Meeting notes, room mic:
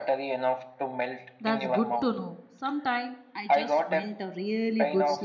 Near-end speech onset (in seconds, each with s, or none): 1.4 s